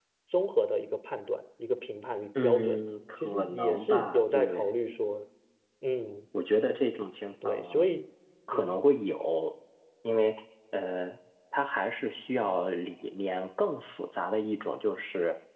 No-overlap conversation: No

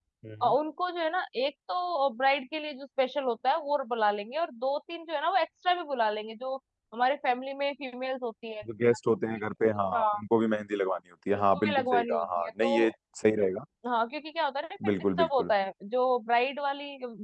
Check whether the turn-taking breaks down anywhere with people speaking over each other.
Yes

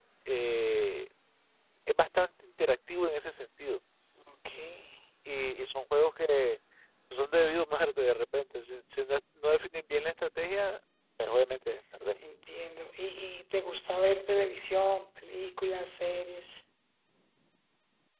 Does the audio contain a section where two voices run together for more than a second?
No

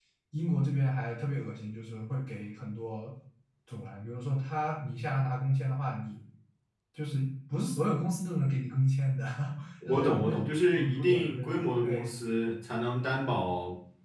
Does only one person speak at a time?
No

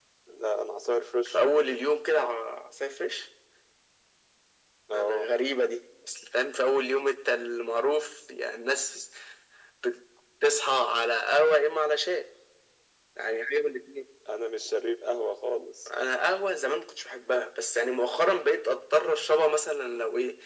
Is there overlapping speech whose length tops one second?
No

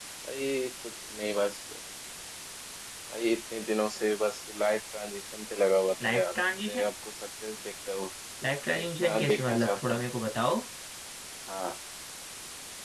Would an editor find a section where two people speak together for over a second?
Yes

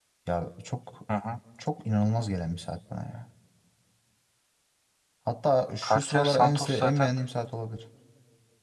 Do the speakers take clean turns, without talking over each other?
No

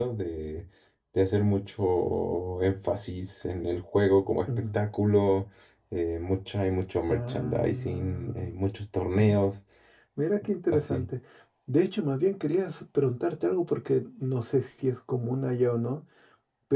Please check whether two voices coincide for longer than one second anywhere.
Yes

